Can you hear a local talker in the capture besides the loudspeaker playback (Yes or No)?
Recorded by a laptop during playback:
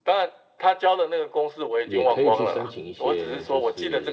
Yes